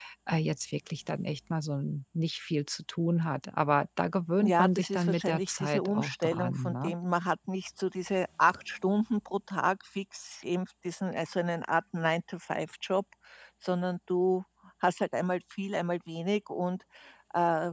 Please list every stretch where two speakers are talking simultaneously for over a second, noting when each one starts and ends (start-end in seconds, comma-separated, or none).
4.4-6.9